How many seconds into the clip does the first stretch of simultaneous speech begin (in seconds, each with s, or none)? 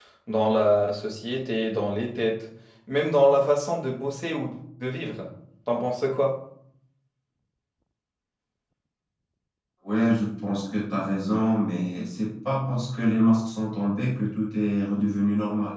none